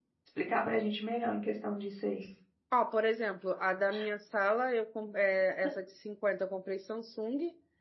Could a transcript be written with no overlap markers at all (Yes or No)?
Yes